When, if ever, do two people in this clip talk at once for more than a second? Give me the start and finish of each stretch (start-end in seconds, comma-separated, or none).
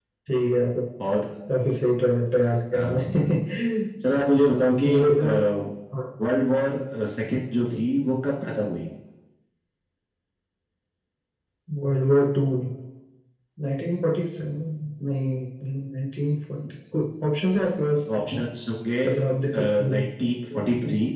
none